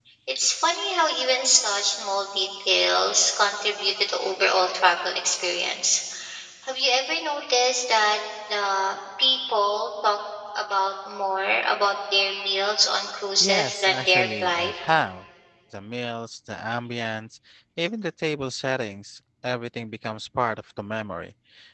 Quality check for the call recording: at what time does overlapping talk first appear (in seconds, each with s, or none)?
13.4 s